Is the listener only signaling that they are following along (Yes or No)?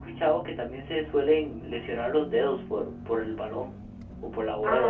No